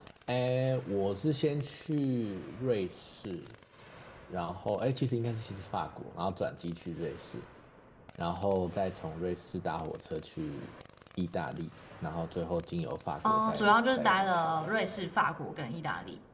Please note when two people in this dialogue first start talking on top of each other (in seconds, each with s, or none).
13.2 s